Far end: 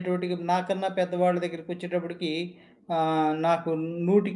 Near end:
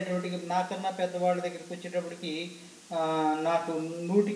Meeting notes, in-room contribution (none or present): none